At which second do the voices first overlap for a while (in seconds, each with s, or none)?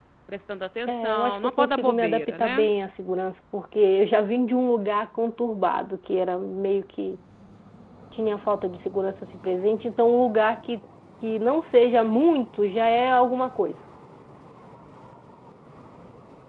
0.9 s